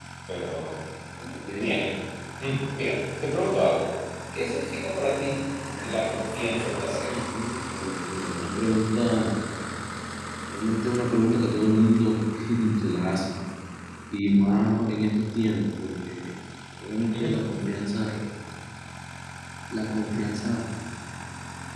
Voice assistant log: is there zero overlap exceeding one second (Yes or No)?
No